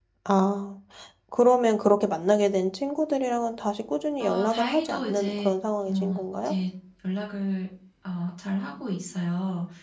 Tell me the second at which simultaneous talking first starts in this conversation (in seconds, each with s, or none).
4.2 s